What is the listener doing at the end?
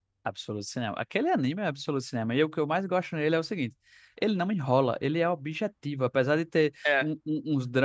listening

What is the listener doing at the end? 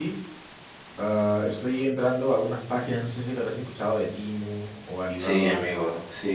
taking over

